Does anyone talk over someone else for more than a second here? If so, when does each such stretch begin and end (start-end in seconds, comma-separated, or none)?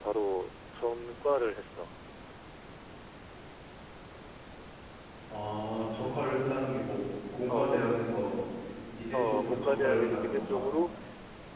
9.1-10.6